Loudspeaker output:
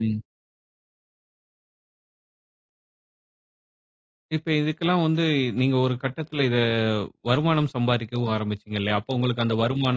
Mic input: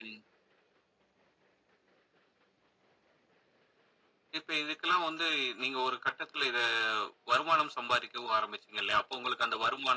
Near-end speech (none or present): none